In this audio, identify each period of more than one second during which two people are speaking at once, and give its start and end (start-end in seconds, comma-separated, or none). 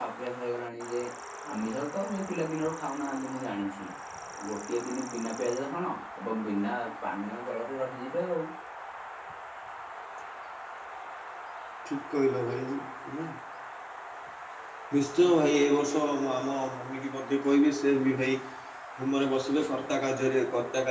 none